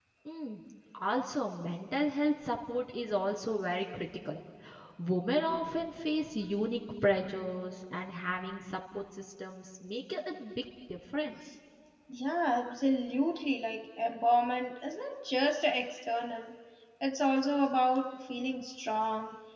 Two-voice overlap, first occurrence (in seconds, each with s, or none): none